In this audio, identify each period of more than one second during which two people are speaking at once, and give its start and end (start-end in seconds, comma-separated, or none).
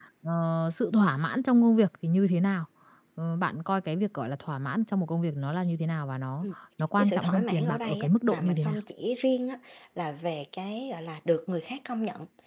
7.0-8.8